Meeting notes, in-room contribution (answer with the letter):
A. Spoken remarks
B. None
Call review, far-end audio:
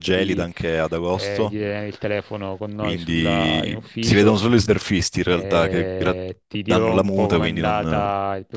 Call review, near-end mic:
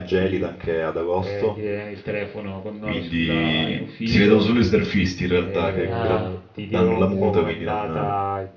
A